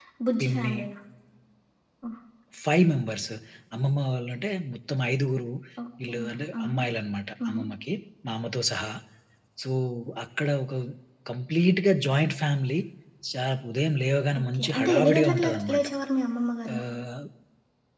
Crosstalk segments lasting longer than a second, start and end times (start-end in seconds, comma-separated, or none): 14.4-15.8